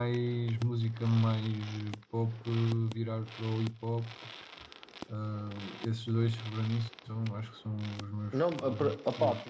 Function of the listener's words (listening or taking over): taking over